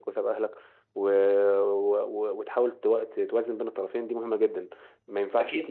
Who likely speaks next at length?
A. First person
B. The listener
B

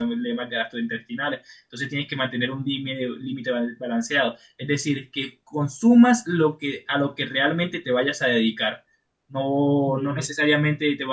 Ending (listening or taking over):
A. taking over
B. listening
B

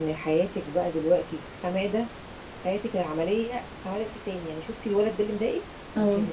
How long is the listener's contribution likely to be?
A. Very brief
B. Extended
A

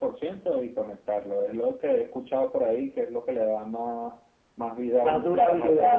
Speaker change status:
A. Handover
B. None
A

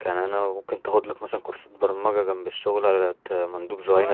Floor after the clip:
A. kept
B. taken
B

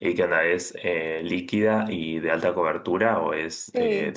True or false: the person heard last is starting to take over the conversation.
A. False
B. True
B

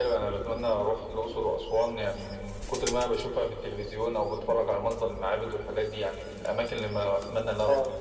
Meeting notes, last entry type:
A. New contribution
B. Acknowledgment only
A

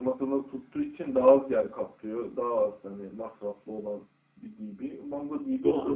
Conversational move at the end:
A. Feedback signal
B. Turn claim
B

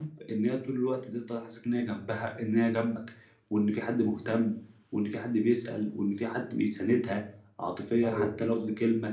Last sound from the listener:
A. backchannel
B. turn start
A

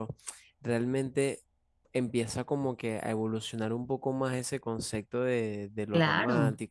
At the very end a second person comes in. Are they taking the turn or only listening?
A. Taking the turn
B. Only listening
B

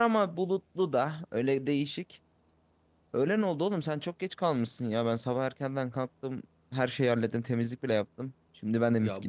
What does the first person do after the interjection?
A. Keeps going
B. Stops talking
B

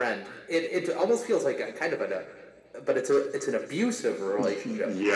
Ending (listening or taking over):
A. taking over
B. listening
A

